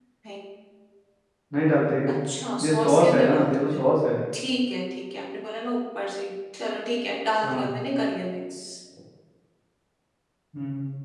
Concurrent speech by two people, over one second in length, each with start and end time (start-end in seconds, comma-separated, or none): 2.6-3.8